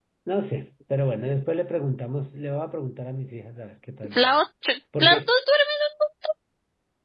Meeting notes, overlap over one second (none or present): none